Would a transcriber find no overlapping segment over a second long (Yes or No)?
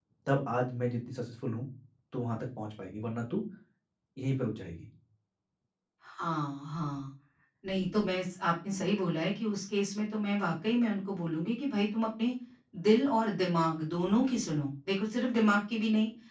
Yes